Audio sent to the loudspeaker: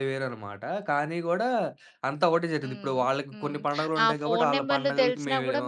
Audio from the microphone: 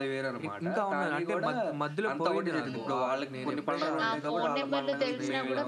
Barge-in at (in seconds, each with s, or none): 0.5 s